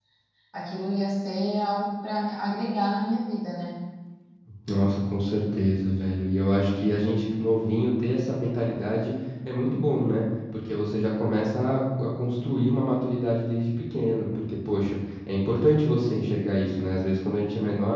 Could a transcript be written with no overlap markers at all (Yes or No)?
Yes